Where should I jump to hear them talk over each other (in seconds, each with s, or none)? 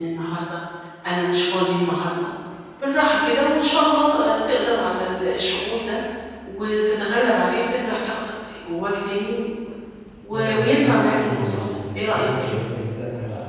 10.3 s